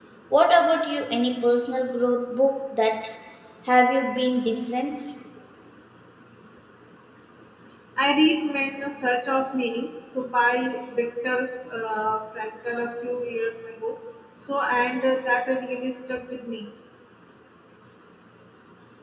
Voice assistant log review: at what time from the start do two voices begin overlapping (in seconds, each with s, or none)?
none